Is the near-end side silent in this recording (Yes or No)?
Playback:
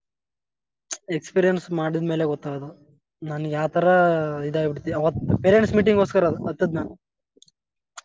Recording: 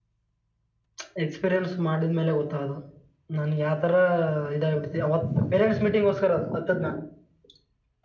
Yes